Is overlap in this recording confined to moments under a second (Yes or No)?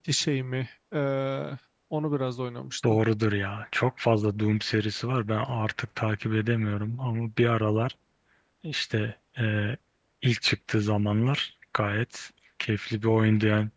Yes